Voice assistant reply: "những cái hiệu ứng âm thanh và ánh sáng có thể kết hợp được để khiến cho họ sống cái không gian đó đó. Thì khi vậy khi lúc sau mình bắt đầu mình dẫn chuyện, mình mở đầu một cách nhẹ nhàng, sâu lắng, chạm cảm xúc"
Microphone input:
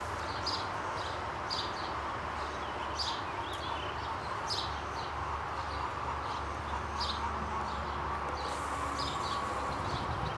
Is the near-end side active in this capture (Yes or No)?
No